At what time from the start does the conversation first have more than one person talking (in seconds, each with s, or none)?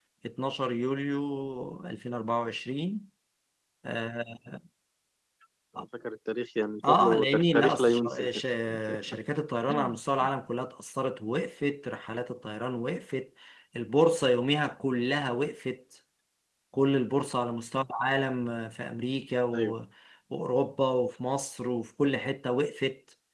6.9 s